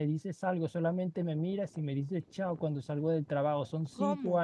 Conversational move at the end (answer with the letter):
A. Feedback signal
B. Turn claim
A